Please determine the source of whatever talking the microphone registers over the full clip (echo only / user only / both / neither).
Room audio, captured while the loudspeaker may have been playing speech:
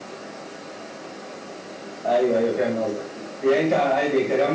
echo only